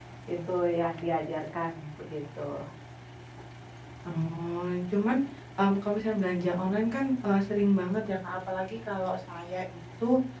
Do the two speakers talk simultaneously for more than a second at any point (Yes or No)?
No